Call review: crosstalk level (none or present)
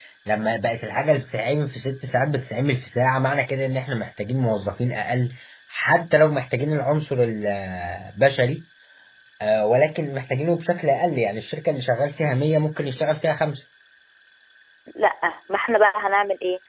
none